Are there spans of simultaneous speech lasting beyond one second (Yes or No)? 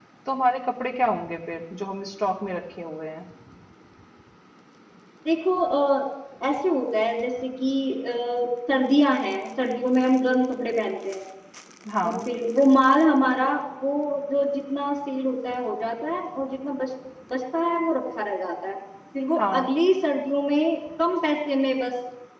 No